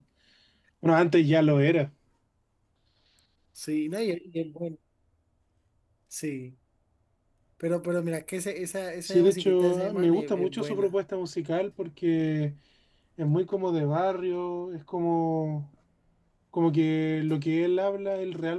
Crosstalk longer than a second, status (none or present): present